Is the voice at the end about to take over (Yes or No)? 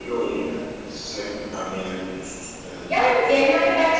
Yes